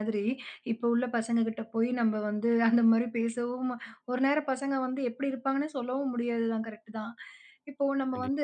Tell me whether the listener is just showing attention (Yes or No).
Yes